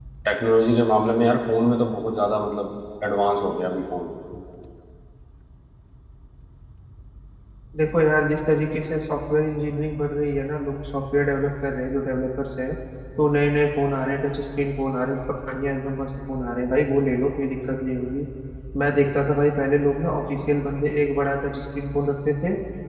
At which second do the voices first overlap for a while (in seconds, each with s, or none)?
none